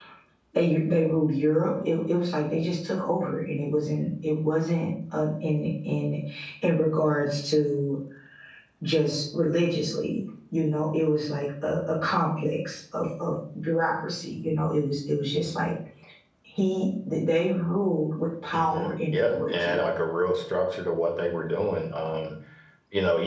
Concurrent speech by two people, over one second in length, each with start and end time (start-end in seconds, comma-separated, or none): 18.5-19.8